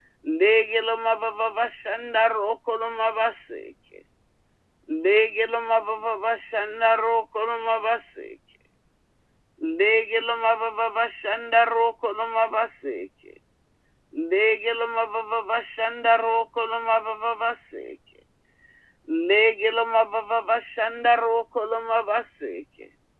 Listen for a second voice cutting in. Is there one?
No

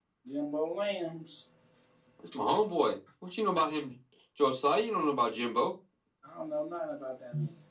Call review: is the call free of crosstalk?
Yes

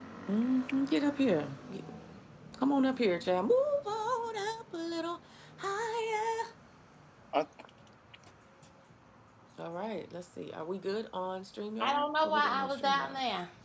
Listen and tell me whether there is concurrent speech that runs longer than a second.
Yes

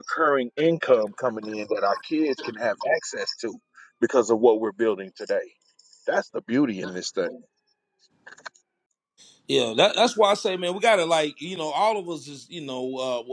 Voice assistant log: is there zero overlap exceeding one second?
Yes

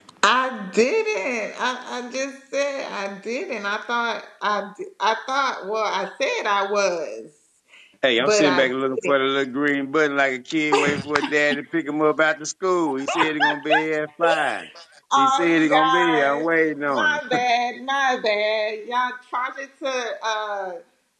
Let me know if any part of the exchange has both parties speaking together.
Yes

